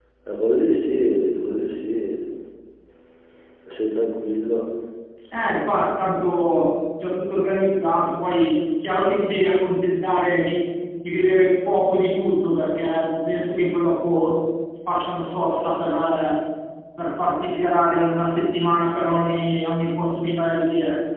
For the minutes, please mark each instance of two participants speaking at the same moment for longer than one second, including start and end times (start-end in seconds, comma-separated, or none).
none